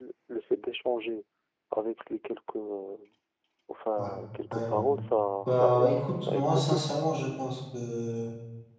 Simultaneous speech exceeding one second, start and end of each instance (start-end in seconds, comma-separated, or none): 5.4-6.8